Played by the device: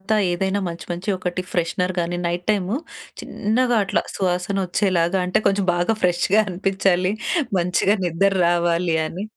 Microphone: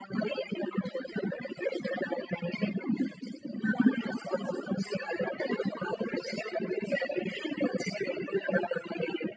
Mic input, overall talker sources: echo only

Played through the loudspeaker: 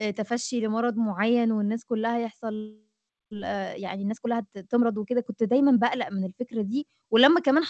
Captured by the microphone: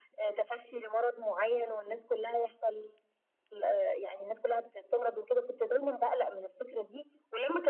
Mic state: echo only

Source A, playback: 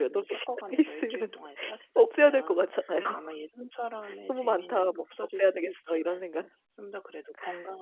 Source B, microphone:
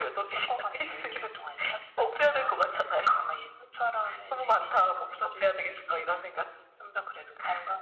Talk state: echo only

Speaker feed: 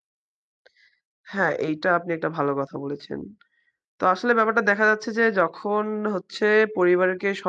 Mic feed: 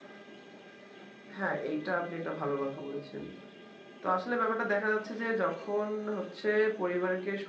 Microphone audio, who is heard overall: echo only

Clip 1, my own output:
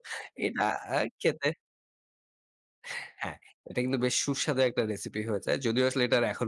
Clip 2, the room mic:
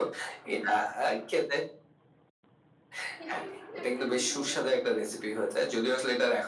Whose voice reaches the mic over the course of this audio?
both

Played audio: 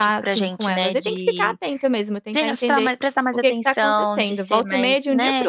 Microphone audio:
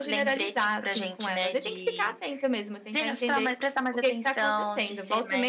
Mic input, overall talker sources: echo only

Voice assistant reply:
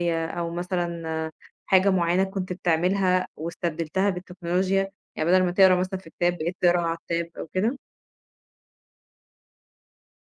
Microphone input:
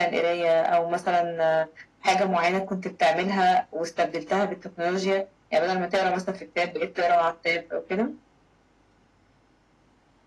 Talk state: echo only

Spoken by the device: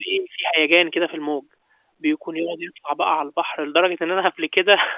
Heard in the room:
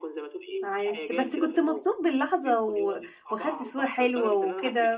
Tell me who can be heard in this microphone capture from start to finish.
both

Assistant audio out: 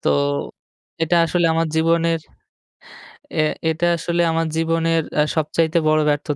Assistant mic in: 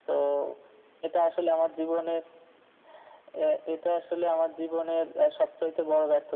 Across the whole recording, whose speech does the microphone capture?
echo only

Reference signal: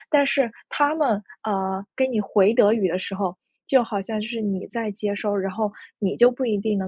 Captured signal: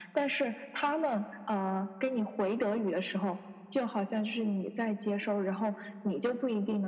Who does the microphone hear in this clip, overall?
echo only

